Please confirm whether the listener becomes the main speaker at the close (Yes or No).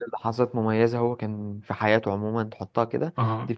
No